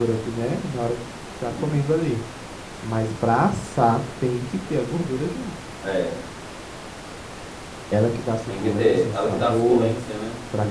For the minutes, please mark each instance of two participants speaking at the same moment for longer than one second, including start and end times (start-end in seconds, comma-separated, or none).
8.6-9.9